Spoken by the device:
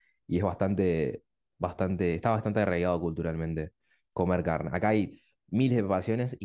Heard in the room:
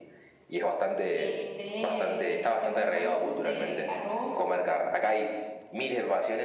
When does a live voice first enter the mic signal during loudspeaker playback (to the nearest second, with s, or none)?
1 s